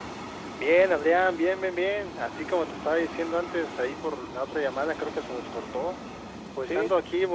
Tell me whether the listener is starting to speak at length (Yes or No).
No